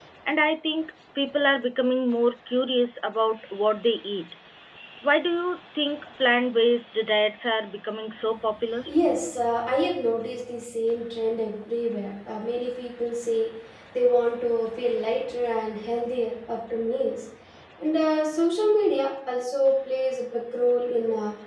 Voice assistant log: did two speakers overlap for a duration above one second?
No

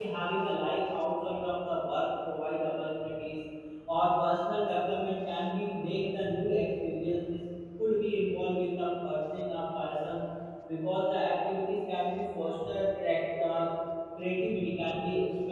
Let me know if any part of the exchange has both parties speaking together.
No

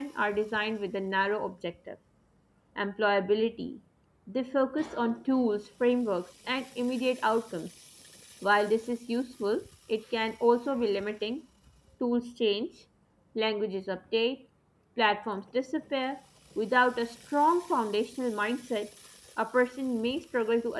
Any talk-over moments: No

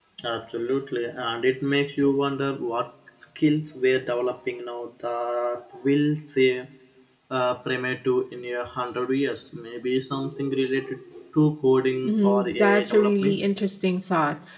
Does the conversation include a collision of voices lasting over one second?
Yes, from 12.0 s

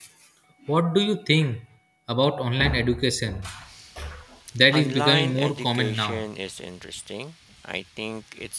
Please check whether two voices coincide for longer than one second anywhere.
Yes, from 4.7 s

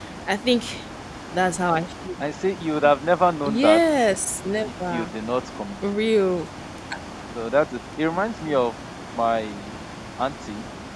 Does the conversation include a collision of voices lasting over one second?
No

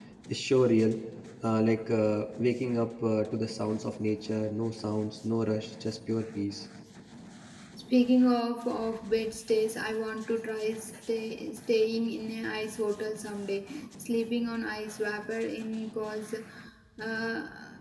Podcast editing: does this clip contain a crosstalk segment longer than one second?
No

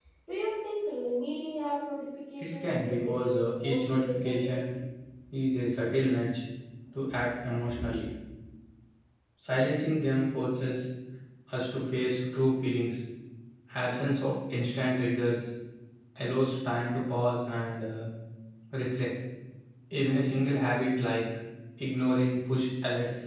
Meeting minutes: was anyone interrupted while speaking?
Yes, from 2.4 s

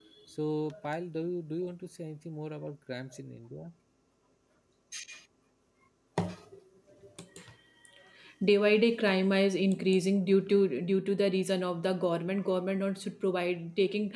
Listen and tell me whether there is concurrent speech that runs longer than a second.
No

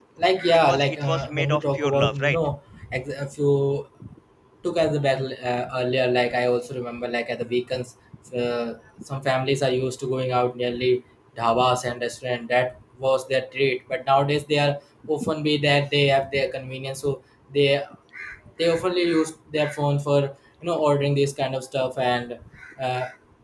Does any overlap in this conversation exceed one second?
Yes, from 0.7 s

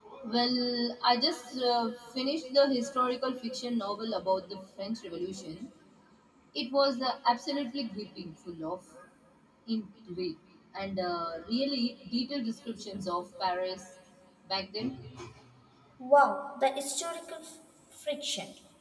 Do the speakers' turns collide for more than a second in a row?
No

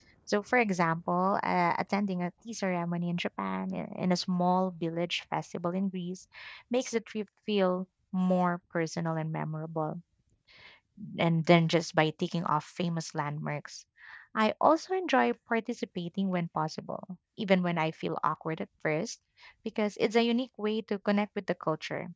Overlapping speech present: No

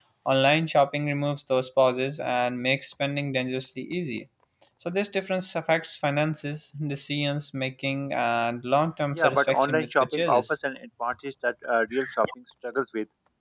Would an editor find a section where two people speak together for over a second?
Yes, from 9.1 s

